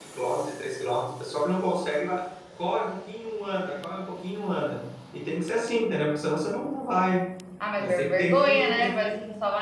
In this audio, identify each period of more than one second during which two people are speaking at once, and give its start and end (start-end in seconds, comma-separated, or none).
7.8-9.1